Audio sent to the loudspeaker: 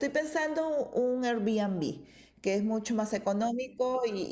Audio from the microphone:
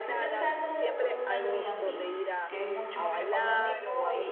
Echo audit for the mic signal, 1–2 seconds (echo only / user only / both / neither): both